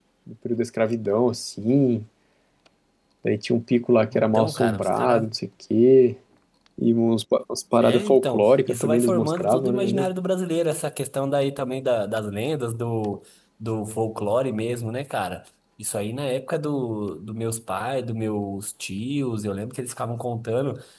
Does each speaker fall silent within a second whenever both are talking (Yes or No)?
No